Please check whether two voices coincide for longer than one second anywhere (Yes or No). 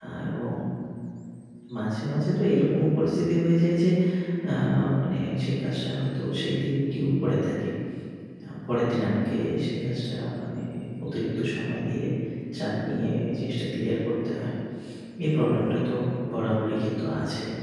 No